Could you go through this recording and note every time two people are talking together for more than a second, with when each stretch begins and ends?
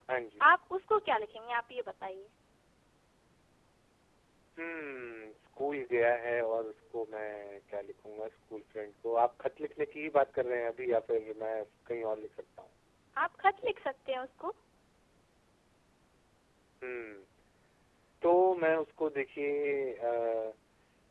none

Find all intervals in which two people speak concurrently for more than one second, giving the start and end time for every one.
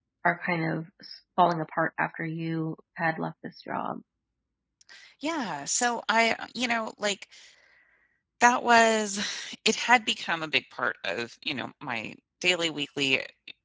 none

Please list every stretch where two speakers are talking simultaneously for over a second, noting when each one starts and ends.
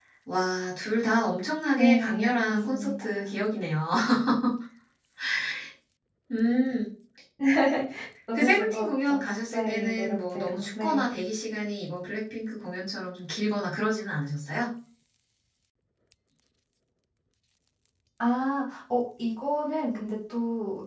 1.8-3.4, 8.3-11.1

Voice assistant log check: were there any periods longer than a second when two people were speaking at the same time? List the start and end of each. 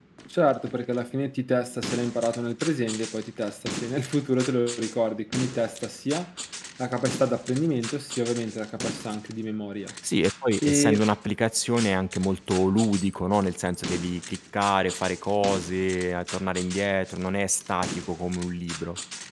none

